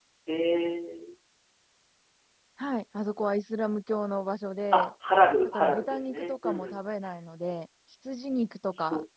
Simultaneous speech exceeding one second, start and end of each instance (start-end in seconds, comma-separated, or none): 5.4-6.8